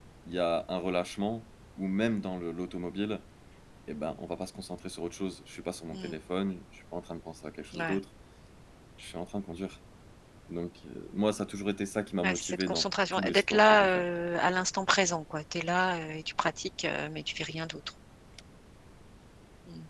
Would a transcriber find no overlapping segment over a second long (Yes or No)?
No